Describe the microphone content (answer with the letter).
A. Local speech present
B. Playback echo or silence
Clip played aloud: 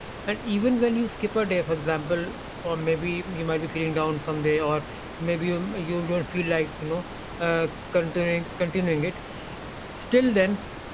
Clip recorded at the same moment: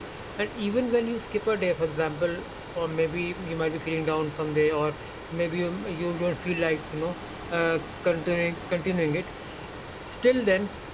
B